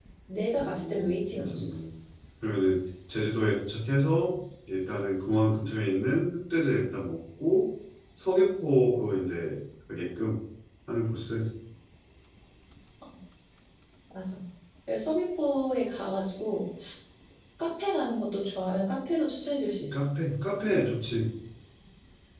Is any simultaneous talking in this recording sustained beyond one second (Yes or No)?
Yes